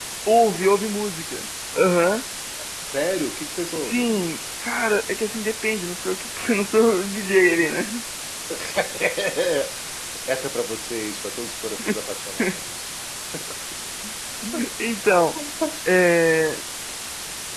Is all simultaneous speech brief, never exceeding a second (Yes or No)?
Yes